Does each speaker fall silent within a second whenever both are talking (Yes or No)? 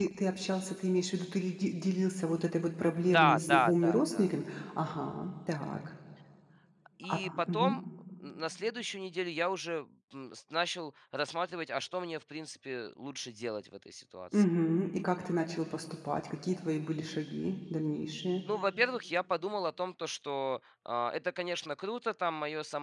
No